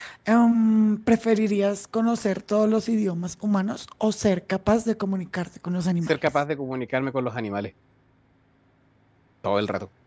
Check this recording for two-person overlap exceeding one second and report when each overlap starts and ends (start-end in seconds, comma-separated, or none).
none